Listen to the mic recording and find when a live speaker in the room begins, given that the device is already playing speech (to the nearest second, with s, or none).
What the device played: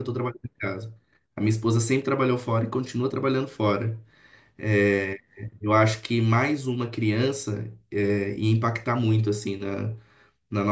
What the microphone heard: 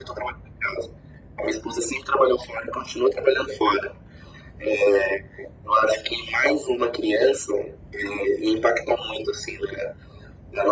none